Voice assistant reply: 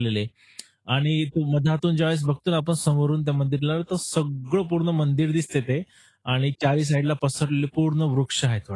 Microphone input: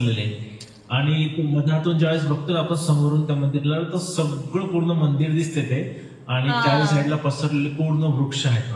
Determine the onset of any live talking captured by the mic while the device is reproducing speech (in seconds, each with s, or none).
6.5 s